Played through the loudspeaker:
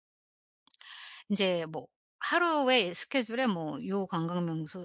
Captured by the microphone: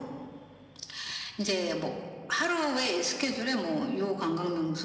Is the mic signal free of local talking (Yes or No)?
Yes